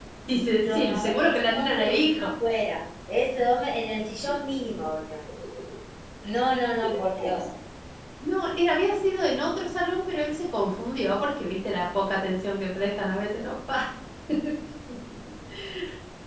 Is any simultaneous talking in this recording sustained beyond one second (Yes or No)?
Yes